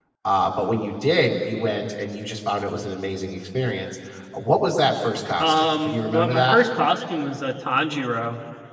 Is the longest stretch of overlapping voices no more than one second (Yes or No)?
No